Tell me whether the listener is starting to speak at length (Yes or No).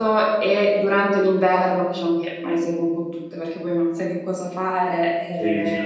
Yes